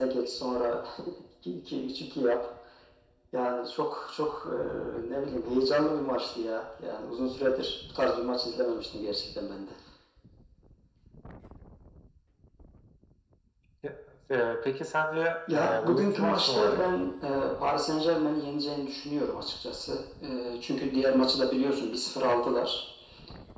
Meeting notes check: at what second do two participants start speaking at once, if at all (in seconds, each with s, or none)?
15.5 s